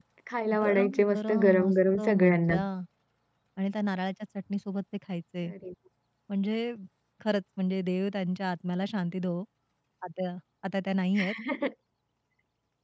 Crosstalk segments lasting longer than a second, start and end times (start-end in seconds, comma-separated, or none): 0.6-2.5